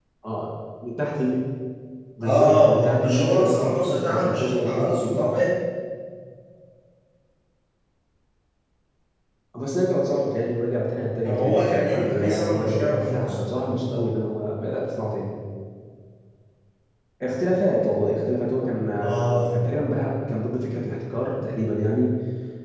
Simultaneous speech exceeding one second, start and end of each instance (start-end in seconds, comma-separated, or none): 2.2-5.4, 11.2-13.3